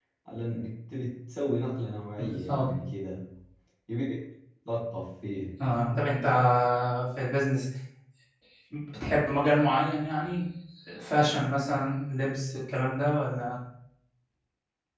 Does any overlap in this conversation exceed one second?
No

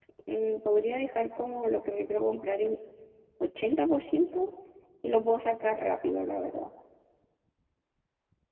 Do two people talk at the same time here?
No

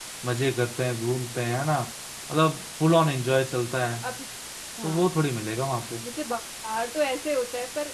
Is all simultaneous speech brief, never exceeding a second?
Yes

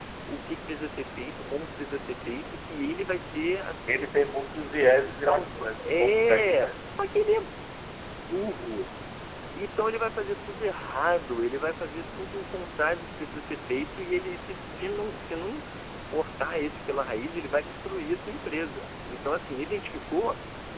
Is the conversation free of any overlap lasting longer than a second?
No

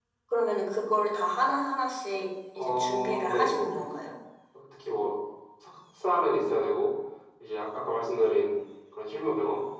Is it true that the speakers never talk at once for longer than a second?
No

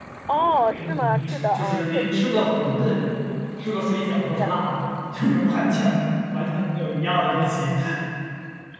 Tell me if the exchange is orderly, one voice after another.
No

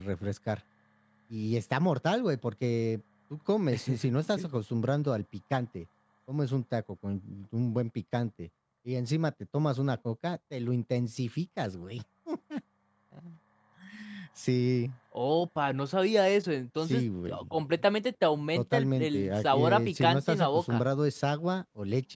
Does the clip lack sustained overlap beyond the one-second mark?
No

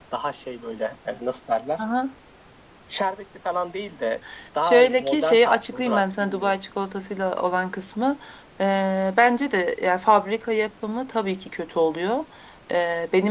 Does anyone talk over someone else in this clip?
Yes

